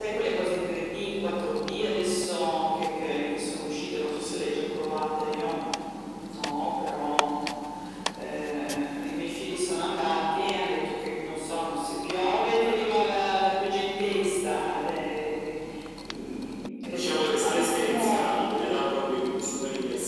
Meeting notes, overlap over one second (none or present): present